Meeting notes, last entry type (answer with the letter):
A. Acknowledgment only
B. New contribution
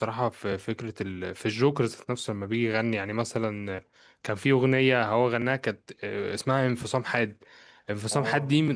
A